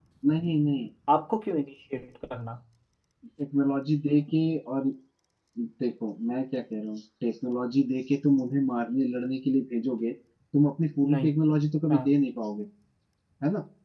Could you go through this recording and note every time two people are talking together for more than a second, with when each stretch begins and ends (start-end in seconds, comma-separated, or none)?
none